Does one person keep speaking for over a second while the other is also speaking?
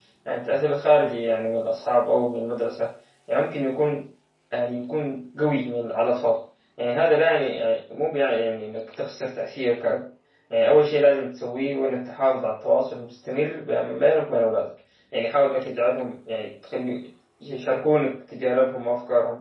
No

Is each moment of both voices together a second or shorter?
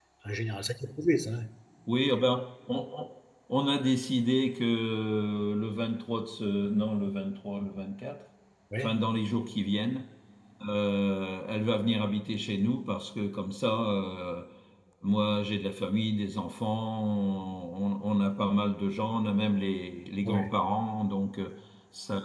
Yes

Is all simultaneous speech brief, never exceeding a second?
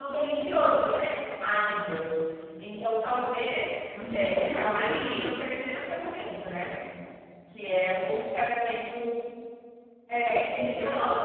No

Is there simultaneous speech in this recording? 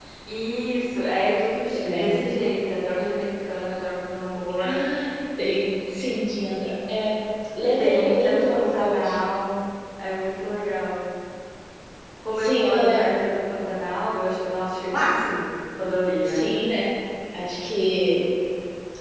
Yes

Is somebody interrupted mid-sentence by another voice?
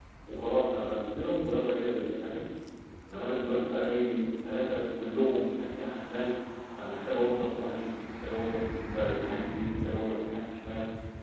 No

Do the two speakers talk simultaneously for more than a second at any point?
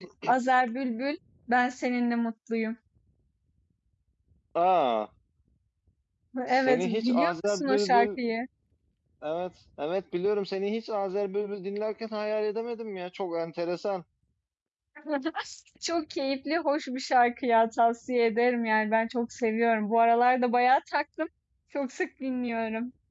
Yes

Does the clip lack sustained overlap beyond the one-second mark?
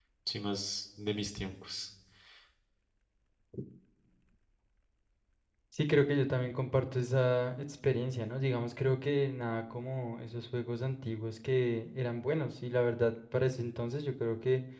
Yes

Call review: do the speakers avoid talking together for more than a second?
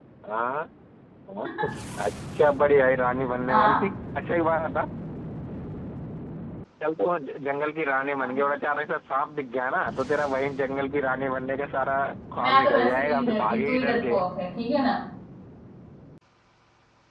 No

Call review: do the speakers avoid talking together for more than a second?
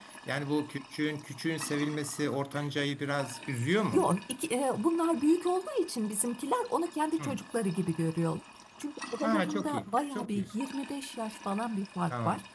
No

